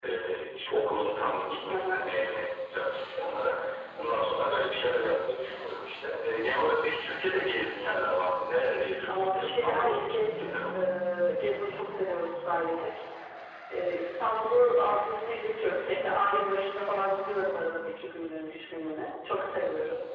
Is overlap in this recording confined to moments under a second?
No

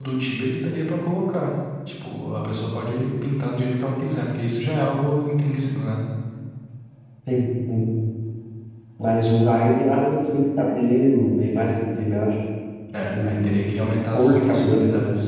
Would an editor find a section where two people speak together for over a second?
Yes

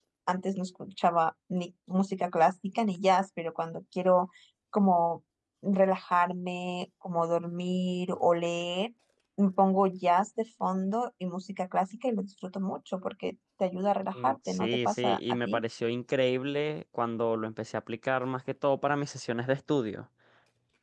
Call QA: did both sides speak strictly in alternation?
No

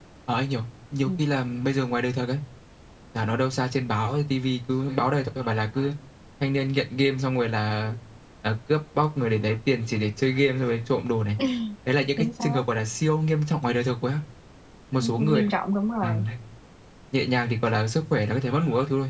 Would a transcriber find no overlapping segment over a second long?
Yes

